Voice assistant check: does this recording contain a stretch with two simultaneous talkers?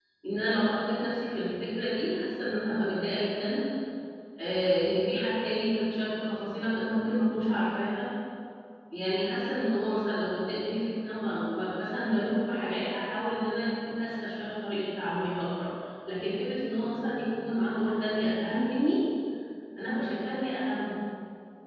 No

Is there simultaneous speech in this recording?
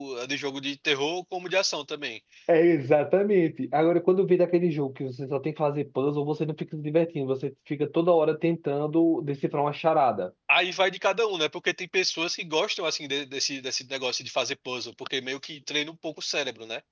No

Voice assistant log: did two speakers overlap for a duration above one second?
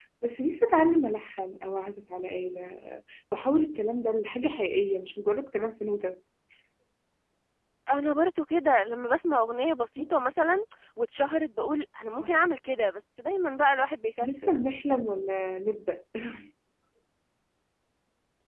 No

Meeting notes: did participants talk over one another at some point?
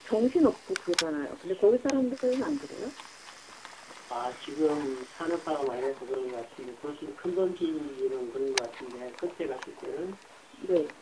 No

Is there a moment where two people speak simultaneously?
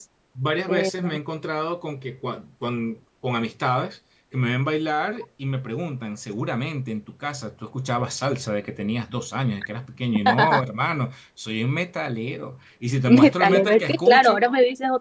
Yes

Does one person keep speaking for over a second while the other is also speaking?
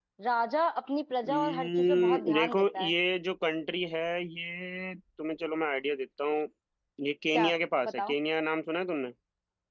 Yes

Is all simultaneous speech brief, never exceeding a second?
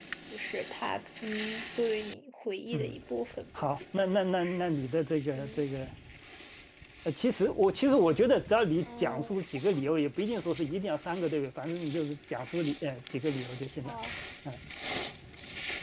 Yes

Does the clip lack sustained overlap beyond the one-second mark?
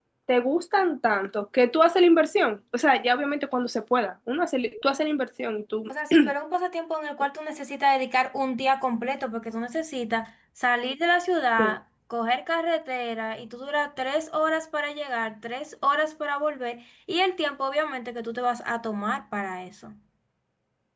Yes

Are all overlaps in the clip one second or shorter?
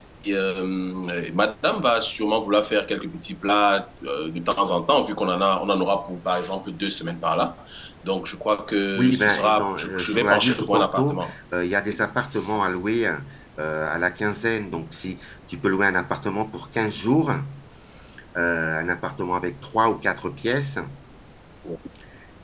No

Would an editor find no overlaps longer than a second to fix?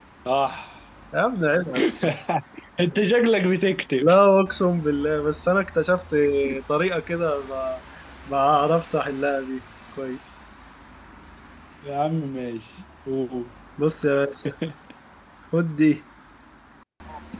Yes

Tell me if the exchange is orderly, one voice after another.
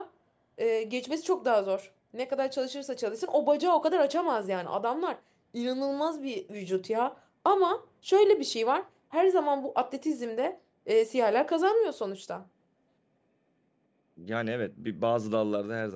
Yes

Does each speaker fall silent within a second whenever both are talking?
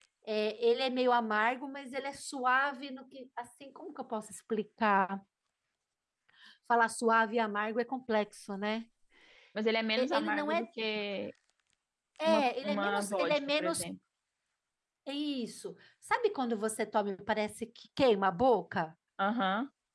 No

